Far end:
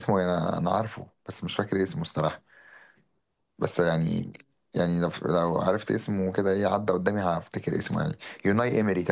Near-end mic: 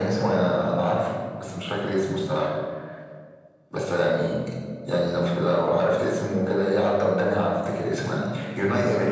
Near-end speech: none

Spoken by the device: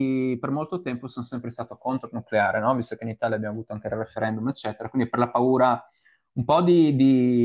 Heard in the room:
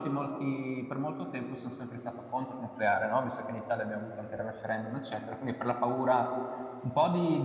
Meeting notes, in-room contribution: none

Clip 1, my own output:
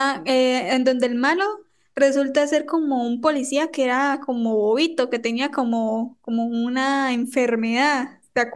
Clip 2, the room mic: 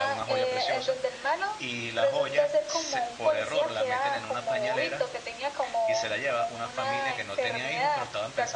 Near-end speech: present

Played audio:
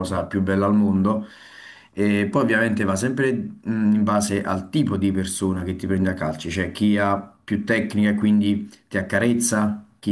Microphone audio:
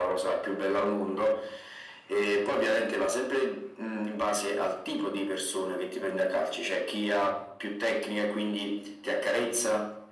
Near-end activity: none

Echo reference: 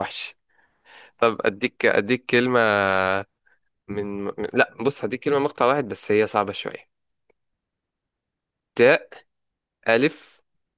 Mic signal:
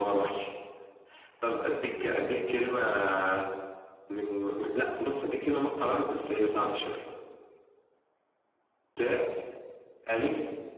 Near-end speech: none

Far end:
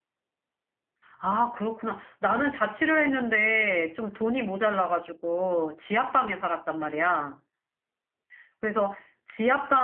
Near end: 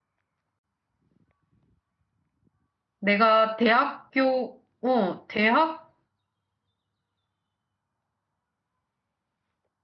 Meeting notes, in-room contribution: present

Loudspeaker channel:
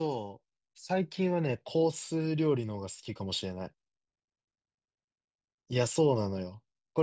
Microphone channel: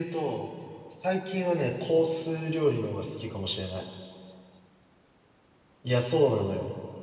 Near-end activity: none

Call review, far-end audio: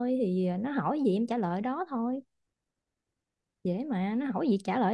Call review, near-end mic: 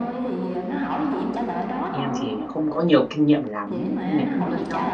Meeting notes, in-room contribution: present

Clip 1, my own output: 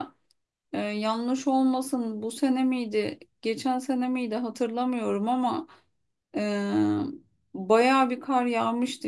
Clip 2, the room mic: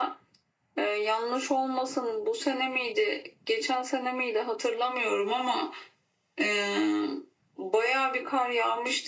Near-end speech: none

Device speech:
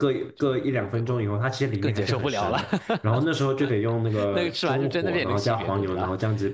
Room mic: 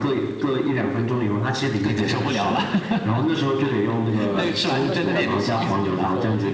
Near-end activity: present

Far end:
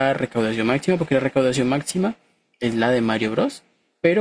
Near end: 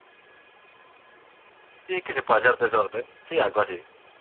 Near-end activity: present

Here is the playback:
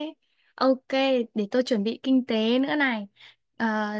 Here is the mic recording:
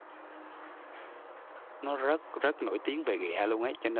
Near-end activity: present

